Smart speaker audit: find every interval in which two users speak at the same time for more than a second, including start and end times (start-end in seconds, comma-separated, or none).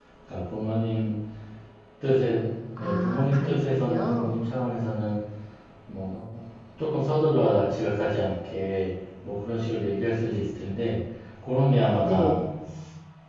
2.8-4.5